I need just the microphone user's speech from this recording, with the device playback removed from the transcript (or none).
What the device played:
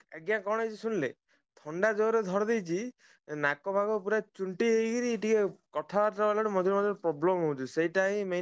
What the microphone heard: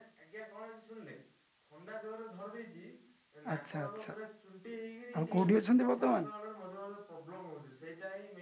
ଆଚ୍ଛା ଆଚ୍ଛା ଆଉ କୋଉଠି ଅଛନ୍ତି ବର୍ତ୍ତମାନ?